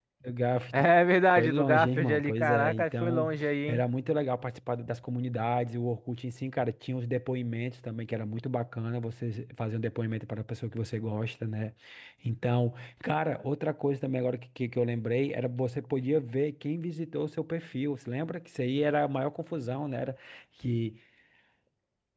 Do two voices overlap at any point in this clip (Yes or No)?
Yes